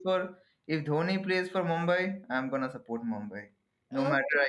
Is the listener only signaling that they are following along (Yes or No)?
No